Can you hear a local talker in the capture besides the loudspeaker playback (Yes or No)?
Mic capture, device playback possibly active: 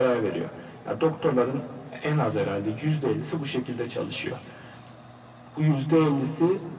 No